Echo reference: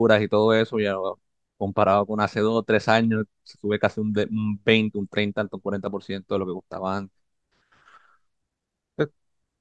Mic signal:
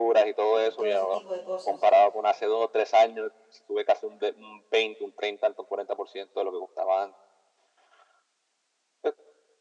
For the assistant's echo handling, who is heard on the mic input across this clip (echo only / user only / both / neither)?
both